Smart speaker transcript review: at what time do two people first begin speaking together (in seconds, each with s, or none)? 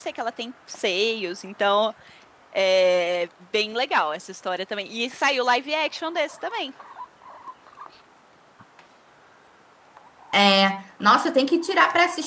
none